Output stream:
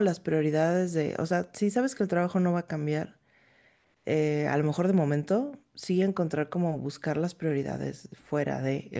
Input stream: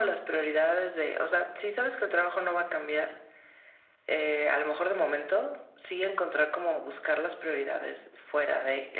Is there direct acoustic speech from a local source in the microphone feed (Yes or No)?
No